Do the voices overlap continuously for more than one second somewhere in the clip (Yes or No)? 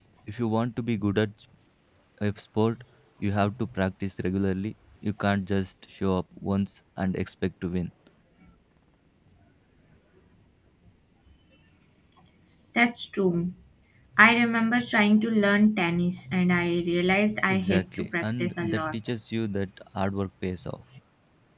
Yes